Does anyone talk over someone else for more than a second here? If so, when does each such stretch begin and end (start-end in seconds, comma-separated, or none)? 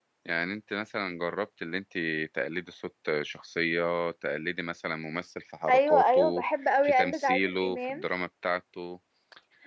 5.7-8.1